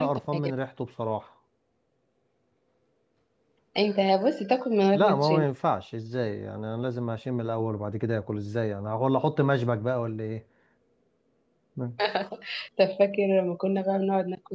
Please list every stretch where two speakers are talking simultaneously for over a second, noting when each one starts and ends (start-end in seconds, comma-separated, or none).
none